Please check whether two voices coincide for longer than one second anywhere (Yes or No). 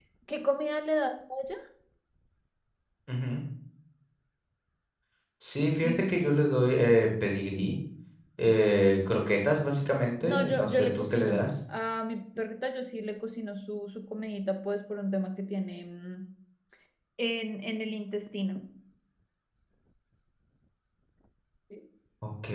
Yes